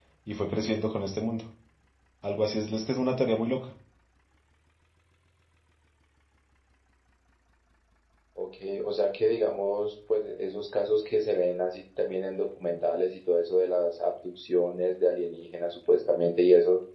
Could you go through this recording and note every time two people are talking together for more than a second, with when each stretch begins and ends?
none

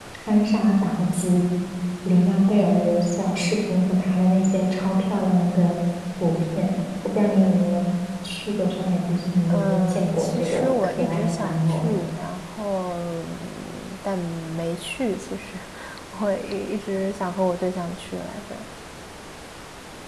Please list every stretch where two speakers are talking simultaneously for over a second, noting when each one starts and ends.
9.5-11.9

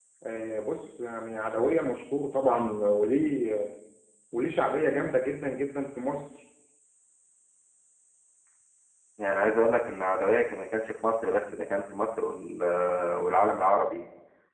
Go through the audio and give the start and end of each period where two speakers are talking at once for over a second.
none

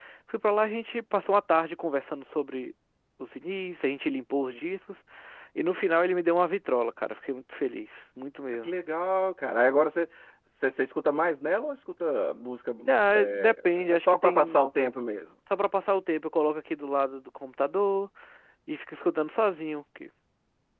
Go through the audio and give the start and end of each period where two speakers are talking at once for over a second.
13.2-14.6

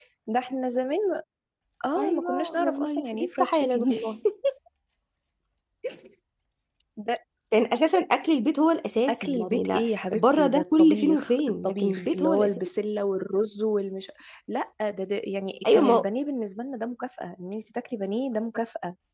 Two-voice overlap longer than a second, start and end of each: 1.9-4.1, 9.1-12.7

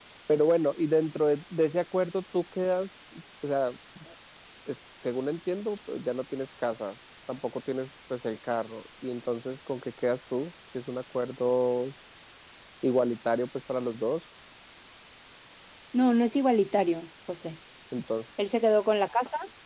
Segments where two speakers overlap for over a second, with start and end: none

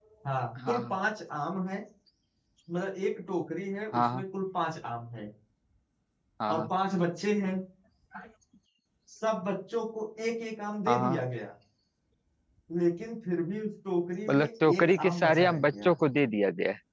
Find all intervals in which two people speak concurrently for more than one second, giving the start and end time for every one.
14.3-15.9

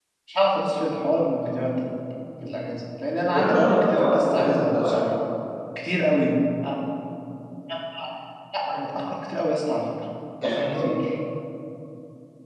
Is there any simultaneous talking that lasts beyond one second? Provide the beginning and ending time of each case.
3.3-5.0

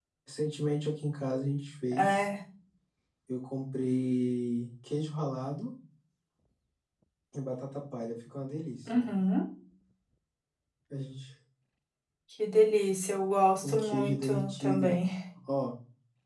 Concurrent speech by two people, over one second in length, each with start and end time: 13.6-14.9

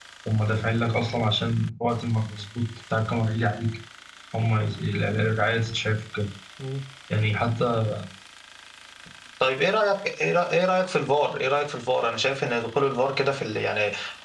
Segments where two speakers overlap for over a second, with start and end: none

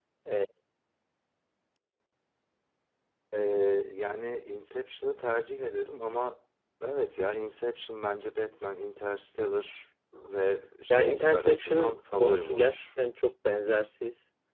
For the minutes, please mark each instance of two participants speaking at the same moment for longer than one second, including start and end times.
10.9-12.8

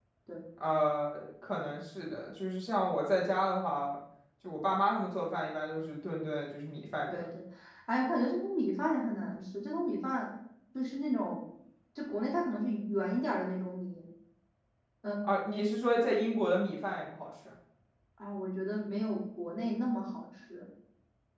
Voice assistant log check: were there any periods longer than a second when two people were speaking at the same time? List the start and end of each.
none

